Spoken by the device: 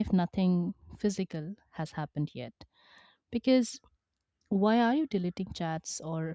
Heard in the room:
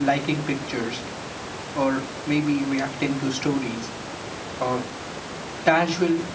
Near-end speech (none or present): present